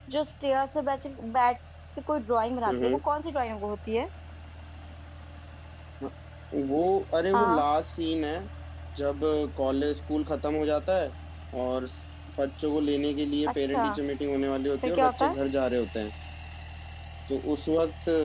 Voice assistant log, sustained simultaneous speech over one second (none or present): none